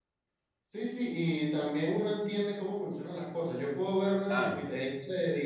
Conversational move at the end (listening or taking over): listening